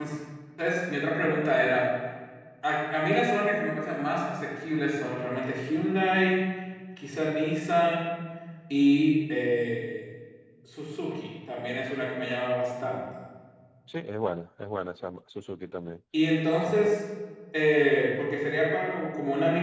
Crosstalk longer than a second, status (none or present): none